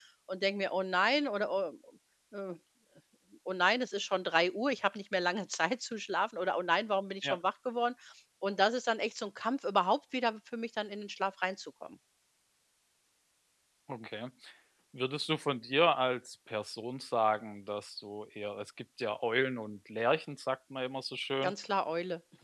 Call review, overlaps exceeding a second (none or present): none